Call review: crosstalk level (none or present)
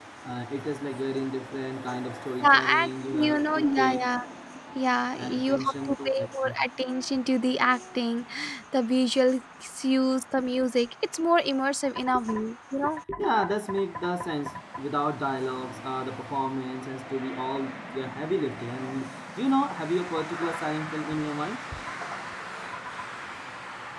present